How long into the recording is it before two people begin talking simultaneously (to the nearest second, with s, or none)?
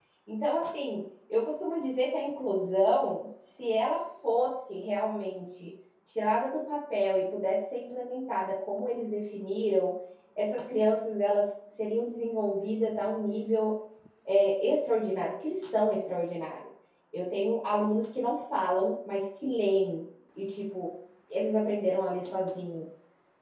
none